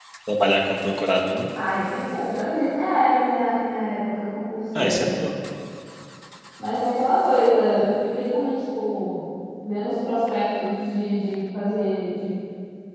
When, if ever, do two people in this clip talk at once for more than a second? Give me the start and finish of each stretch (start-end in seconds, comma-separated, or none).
none